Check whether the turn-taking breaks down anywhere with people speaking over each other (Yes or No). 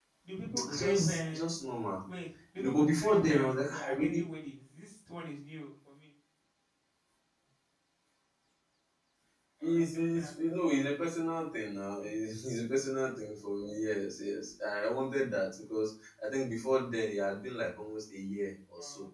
Yes